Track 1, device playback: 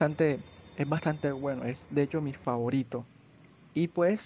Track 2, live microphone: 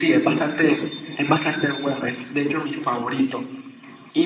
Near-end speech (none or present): none